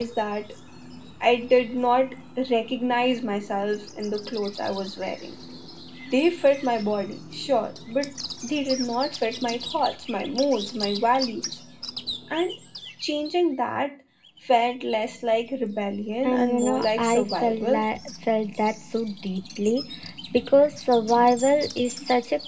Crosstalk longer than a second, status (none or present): present